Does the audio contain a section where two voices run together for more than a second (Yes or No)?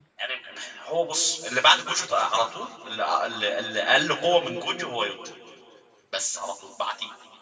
No